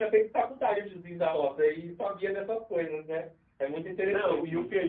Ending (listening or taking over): taking over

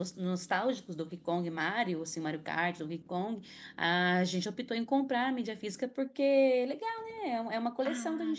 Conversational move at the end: taking over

